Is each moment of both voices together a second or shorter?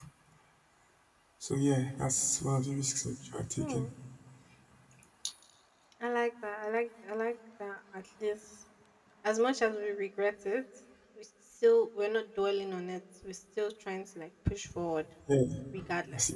Yes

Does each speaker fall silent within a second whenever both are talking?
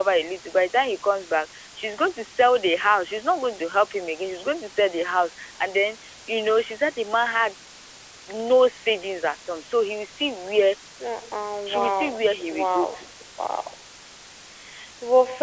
No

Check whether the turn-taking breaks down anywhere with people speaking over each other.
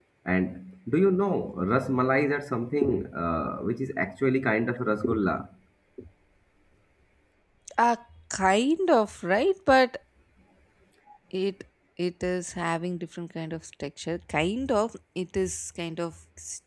No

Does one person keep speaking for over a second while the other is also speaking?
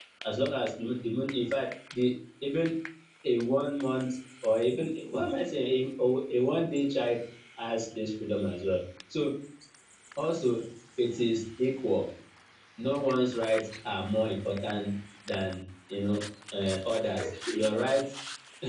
No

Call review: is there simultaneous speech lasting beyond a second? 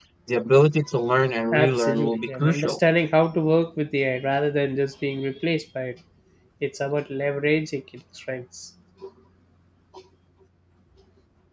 Yes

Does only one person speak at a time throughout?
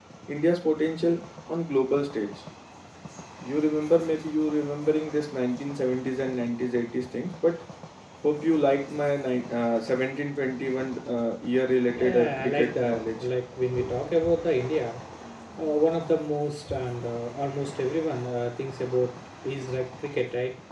No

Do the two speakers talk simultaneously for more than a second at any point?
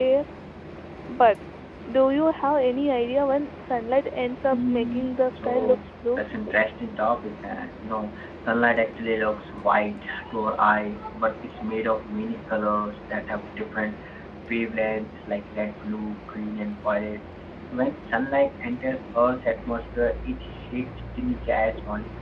Yes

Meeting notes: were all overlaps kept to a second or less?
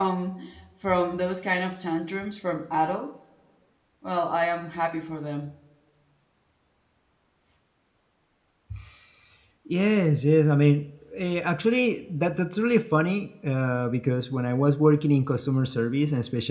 Yes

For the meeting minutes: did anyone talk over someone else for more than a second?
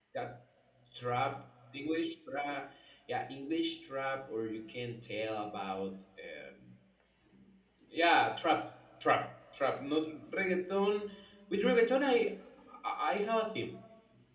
No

